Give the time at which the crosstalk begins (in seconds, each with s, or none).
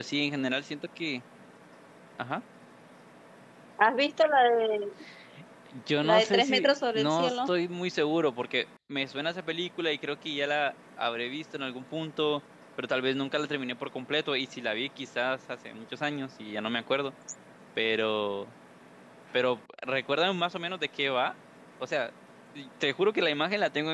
6.0 s